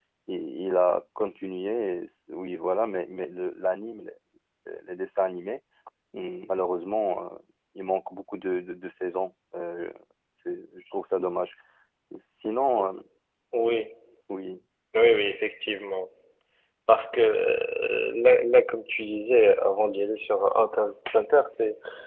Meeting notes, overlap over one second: none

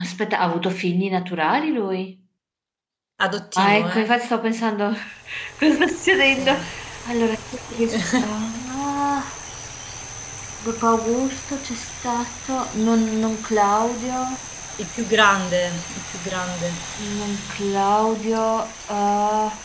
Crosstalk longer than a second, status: none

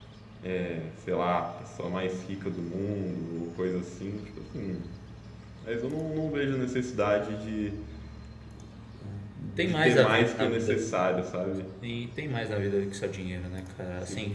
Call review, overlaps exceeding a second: present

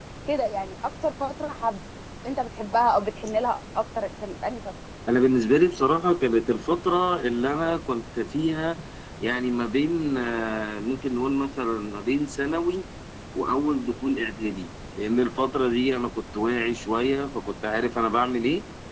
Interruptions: none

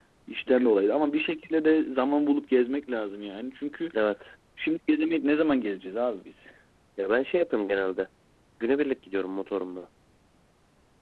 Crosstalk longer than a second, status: none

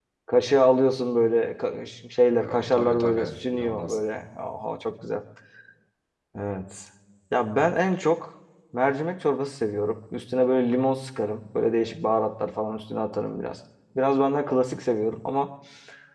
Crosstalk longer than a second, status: present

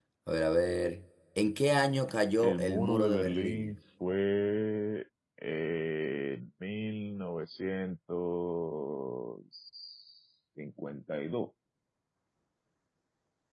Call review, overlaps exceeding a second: present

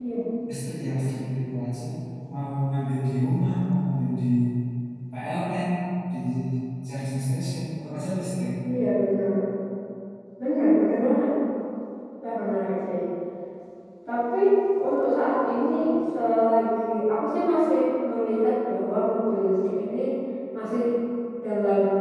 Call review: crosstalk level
none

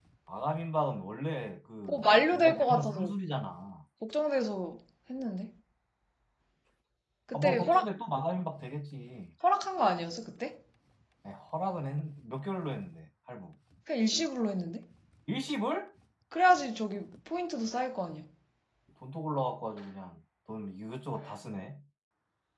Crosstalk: present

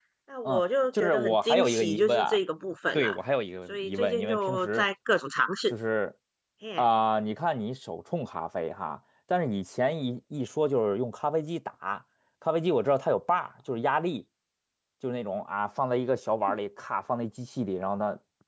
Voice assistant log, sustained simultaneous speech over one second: present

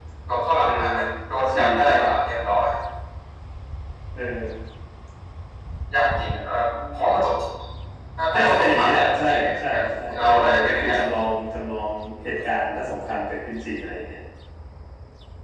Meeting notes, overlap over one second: present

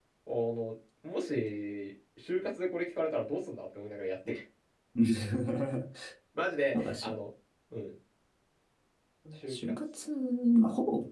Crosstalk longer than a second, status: none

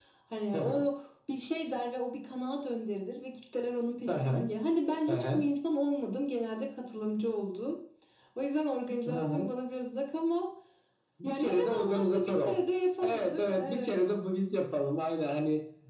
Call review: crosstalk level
present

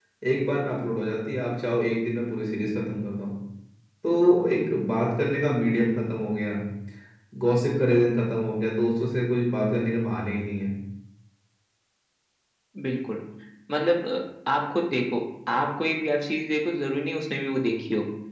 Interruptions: none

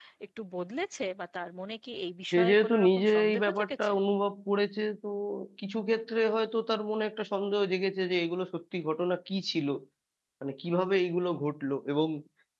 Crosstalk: present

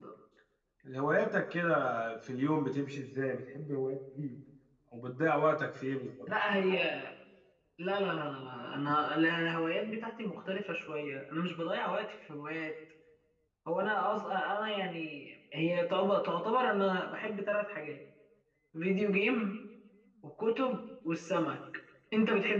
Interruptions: none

